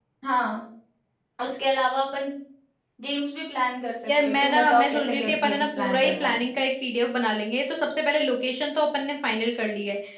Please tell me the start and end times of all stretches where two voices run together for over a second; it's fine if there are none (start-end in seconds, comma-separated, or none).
4.1-6.4